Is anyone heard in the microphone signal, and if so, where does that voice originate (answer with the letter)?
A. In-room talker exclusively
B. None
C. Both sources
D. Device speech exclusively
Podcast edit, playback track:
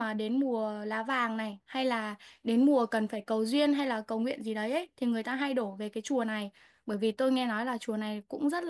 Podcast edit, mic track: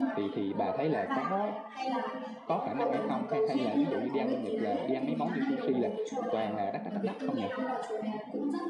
C